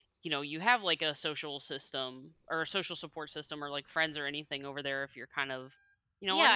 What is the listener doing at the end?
taking over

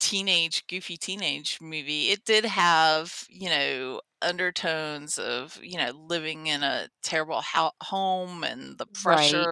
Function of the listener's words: listening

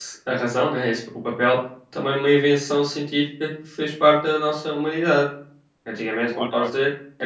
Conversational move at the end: listening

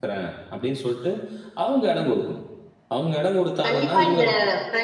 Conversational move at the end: taking over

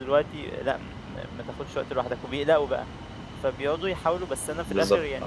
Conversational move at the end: listening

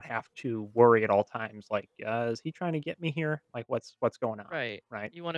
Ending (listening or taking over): taking over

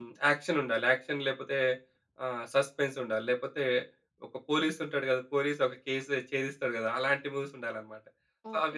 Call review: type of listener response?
taking over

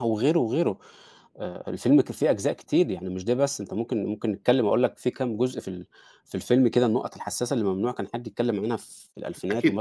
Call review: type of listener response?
taking over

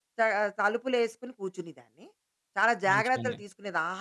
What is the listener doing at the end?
listening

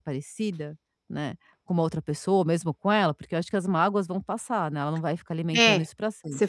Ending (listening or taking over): taking over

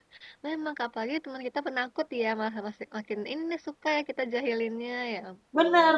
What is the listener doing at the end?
taking over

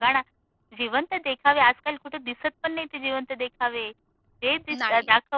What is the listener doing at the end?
listening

